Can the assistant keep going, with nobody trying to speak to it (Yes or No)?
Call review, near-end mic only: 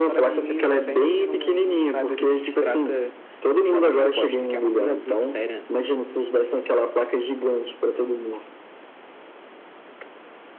Yes